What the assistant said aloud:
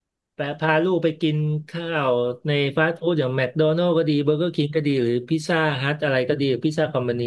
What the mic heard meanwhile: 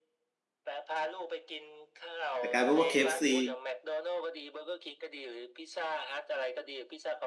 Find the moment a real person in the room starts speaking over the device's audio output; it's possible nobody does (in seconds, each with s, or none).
2.4 s